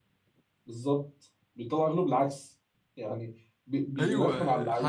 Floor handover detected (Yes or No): Yes